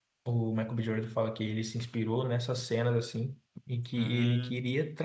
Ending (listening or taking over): listening